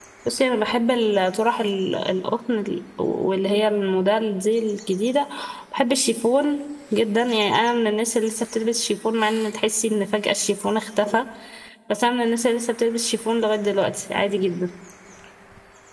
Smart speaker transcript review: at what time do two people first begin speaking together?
none

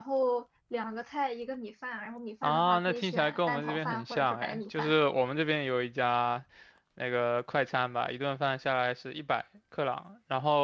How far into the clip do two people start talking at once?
2.4 s

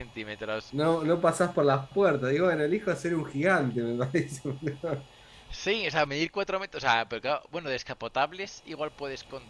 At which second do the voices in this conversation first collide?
none

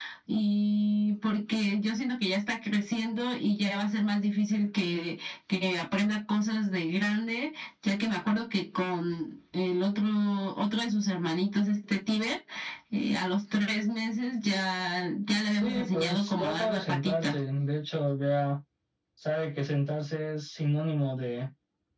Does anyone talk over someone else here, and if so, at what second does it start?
15.6 s

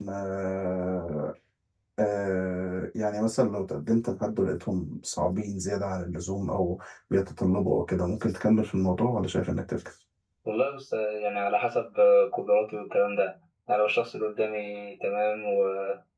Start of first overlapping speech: none

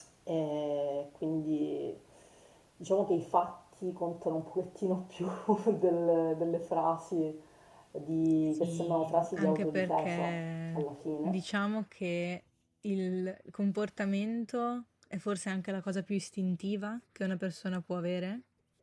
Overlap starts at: 8.5 s

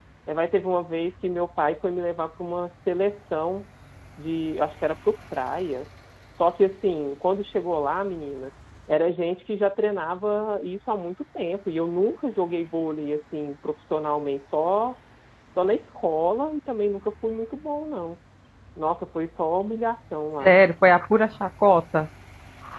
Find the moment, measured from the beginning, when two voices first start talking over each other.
none

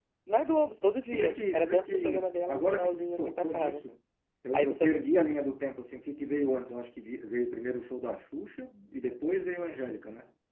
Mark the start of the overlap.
1.1 s

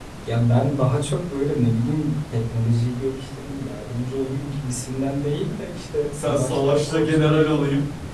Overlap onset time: 6.2 s

